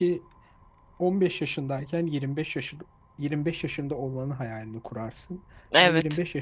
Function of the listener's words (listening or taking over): listening